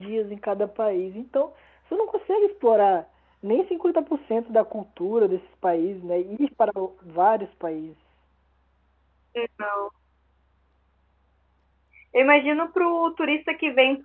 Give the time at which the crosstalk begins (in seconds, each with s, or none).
none